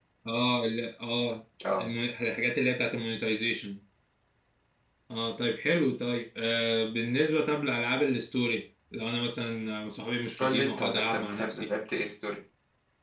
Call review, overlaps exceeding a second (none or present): present